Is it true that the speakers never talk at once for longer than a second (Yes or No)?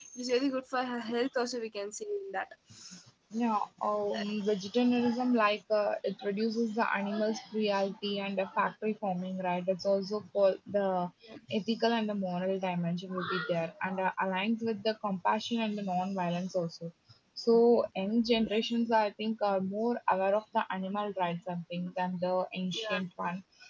Yes